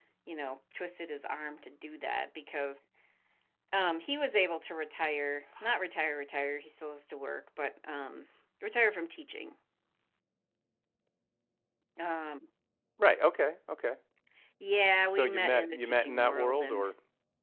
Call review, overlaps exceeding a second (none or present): present